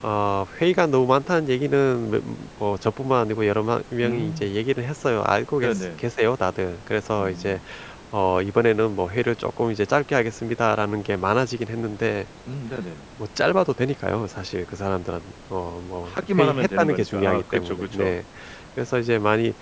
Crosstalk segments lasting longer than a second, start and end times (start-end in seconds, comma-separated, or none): 16.0-18.1